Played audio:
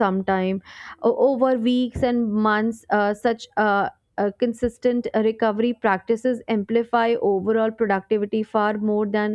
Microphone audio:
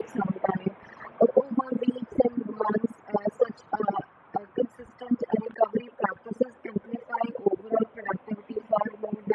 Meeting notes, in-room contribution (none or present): none